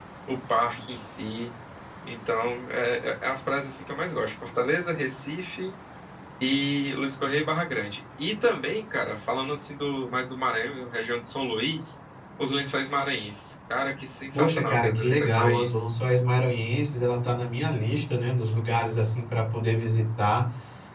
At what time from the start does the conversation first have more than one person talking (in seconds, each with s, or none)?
14.3 s